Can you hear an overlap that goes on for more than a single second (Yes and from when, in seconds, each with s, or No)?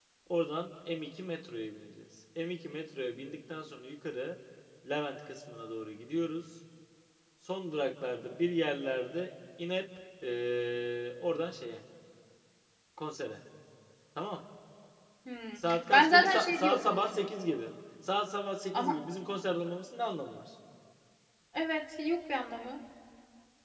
Yes, from 15.7 s